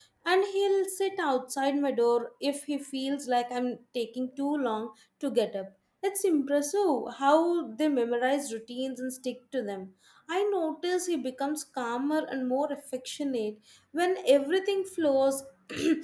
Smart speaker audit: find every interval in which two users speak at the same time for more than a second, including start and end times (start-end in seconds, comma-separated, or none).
none